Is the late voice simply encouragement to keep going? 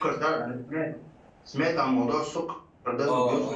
No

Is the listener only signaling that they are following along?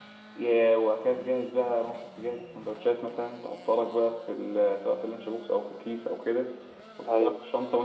Yes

